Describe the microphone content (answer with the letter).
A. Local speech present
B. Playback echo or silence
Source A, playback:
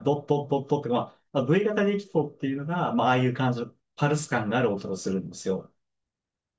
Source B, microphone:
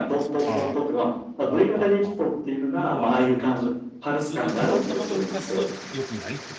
A